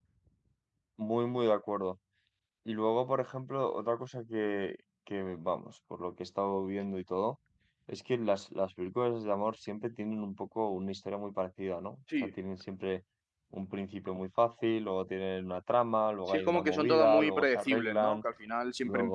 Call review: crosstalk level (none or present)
present